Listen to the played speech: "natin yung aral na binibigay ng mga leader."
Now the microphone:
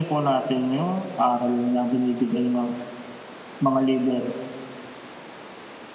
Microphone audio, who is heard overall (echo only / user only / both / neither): echo only